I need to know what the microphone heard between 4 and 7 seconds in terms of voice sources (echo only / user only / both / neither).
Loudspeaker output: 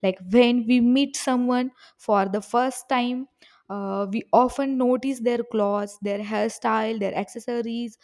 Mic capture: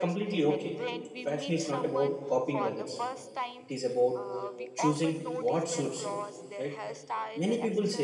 both